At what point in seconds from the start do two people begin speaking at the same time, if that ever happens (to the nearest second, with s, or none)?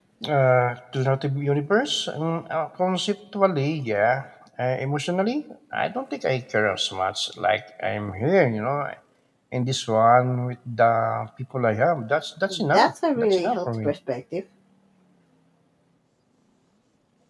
12 s